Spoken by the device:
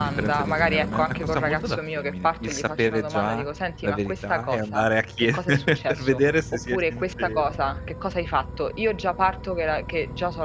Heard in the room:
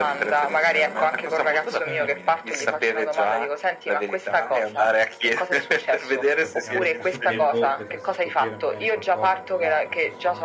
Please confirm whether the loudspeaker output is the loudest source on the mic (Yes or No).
Yes